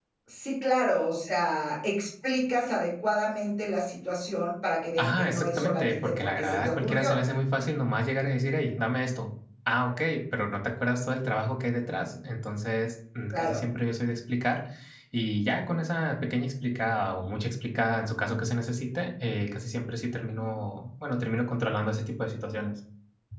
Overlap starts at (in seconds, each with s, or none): 5.0 s